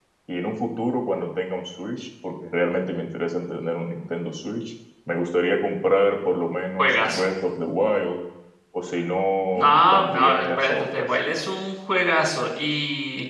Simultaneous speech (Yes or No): Yes